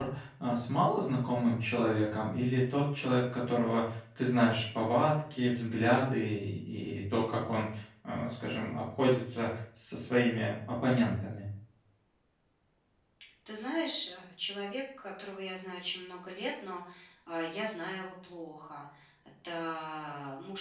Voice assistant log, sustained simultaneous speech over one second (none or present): none